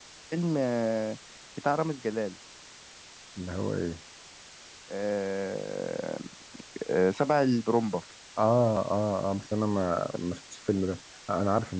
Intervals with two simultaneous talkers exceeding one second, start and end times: none

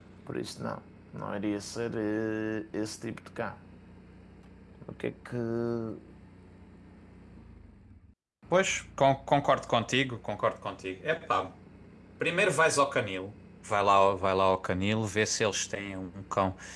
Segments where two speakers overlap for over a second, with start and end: none

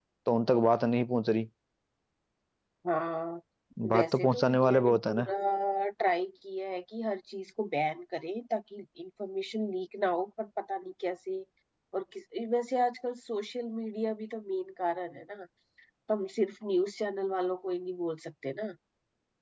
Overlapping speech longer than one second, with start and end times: 3.9-5.3

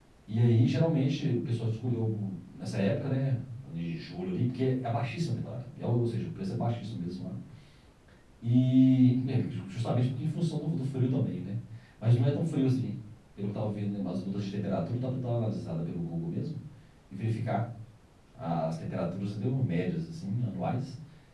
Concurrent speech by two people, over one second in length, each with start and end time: none

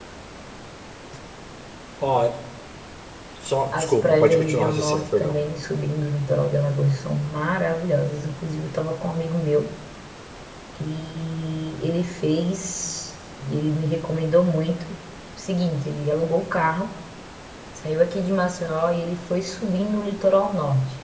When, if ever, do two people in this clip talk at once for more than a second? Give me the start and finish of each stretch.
3.7-5.4

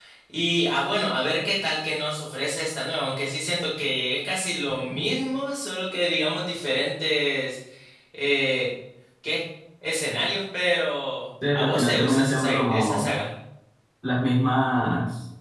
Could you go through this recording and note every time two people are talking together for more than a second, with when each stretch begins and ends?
11.5-13.1

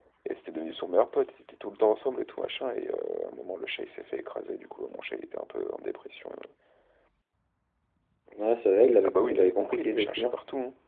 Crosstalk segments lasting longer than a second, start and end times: 9.0-10.3

